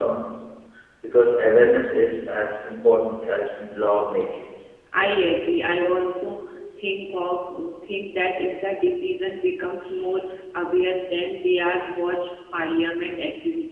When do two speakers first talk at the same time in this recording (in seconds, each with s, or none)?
none